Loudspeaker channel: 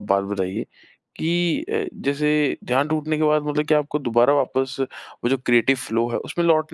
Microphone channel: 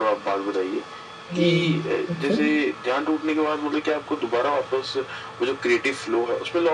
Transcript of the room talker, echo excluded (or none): जी। जैसे?